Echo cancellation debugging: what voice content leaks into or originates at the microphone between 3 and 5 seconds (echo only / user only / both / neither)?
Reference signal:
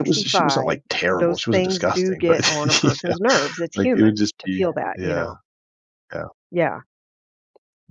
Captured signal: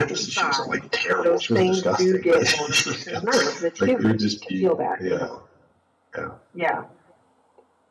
echo only